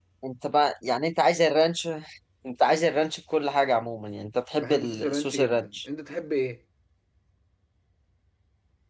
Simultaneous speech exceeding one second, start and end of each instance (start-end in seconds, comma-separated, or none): 4.6-5.8